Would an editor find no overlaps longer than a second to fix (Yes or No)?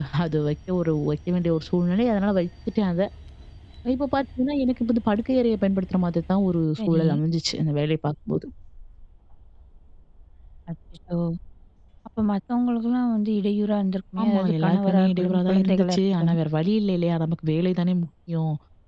No